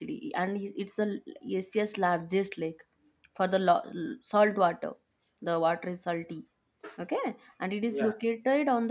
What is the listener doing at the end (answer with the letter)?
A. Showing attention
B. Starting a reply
A